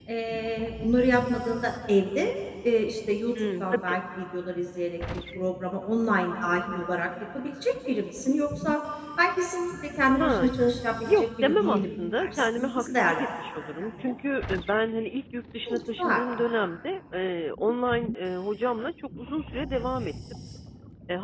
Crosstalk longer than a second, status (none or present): present